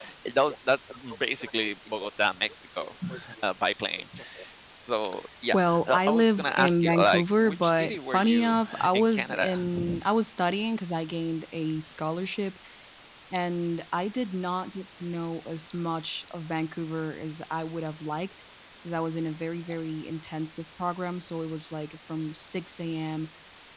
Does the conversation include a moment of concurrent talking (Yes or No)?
Yes